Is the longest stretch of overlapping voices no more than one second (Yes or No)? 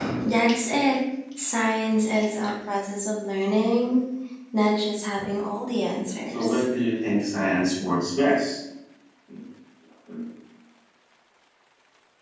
Yes